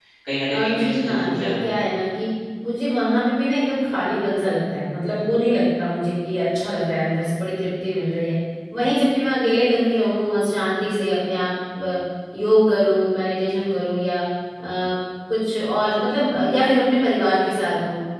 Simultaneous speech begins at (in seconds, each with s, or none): 0.5 s